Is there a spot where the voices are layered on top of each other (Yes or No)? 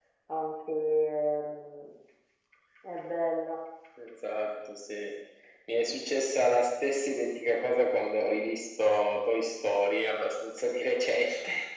No